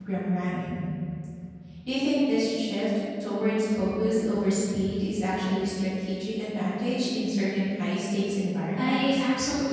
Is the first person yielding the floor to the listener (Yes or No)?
Yes